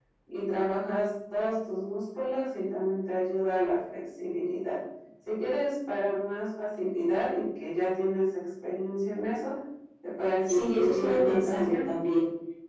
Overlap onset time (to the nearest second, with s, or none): 10 s